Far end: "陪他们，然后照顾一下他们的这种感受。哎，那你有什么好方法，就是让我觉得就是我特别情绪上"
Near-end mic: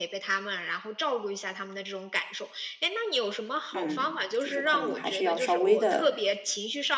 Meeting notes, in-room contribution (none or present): present